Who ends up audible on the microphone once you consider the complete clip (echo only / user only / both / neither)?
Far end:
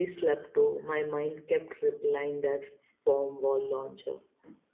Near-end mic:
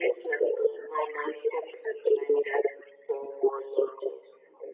echo only